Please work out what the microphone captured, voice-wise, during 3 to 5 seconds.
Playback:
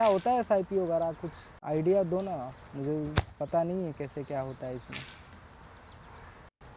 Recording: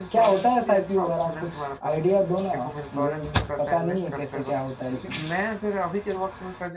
both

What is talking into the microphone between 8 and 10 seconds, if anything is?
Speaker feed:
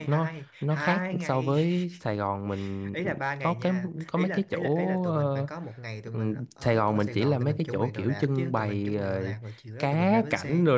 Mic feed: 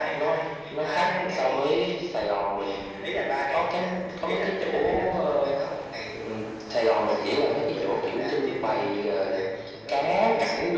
echo only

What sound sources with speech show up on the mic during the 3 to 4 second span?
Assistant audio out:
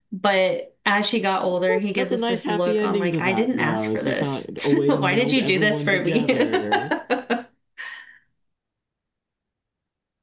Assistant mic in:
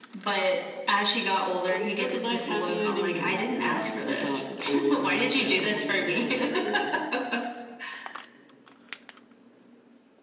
echo only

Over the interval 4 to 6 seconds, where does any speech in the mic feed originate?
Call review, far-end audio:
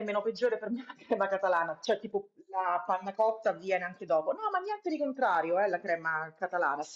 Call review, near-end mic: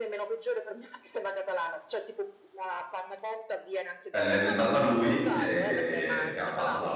both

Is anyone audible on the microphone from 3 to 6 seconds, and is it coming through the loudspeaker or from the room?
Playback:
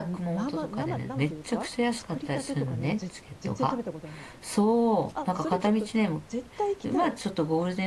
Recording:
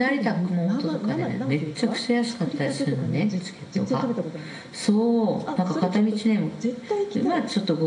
echo only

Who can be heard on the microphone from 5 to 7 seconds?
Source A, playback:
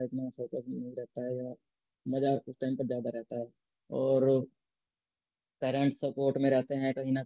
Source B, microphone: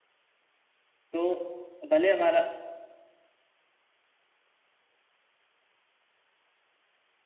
neither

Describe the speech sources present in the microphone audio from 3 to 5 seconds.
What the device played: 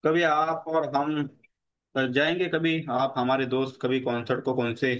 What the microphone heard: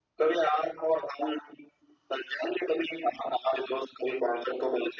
echo only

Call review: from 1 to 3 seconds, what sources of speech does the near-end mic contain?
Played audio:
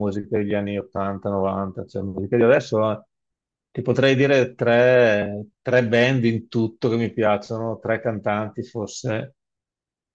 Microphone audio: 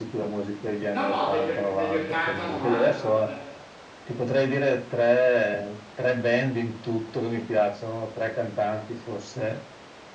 both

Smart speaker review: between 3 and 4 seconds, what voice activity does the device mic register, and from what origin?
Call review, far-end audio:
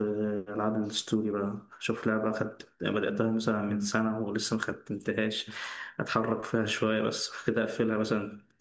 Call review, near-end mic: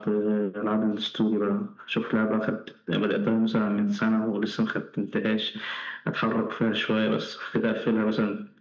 echo only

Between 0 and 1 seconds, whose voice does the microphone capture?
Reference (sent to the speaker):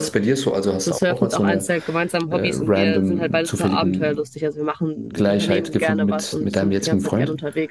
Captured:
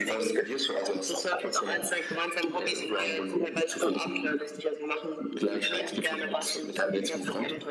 echo only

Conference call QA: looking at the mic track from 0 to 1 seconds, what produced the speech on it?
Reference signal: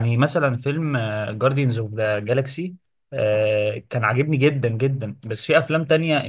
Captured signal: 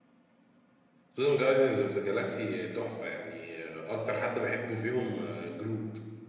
neither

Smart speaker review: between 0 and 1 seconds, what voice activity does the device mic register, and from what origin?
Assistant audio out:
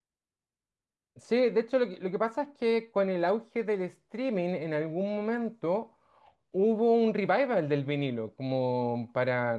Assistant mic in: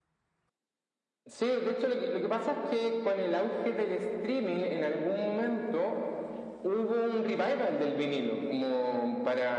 neither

